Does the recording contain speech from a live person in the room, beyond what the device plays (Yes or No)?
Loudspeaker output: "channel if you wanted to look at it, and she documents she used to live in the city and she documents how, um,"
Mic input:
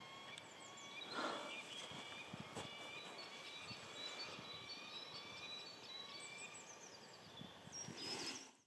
No